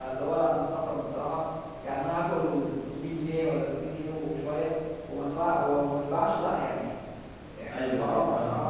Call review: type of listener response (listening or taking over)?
taking over